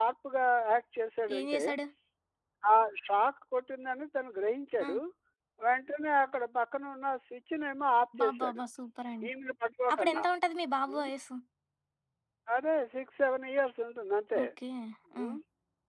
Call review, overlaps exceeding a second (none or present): none